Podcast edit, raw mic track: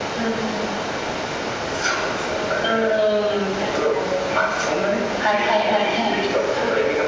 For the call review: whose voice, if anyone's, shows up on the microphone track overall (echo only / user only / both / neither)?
echo only